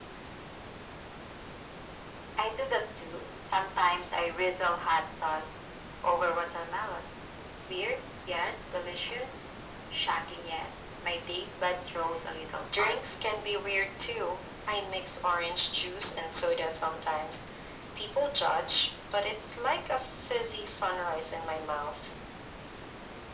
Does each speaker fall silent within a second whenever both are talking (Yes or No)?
Yes